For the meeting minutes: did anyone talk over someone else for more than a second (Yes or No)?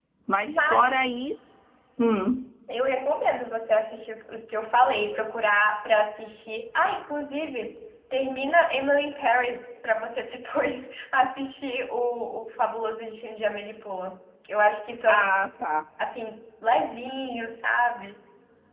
No